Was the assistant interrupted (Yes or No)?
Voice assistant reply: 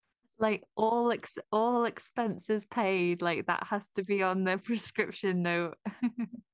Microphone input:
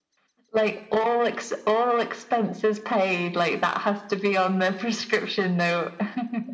No